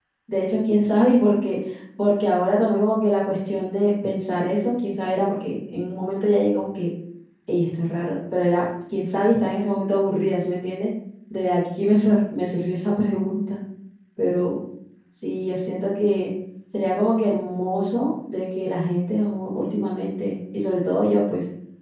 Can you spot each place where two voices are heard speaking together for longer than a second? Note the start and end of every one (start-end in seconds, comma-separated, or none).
none